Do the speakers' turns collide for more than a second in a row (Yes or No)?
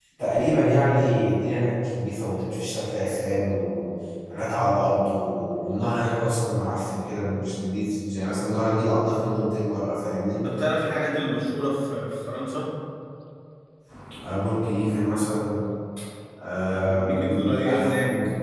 Yes